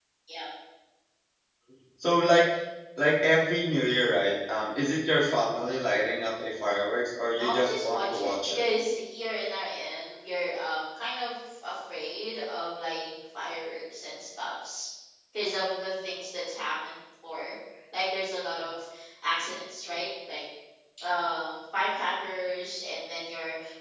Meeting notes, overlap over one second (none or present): present